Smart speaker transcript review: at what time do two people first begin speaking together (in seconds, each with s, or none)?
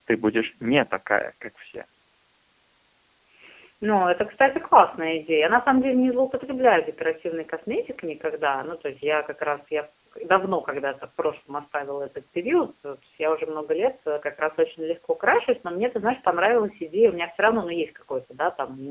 none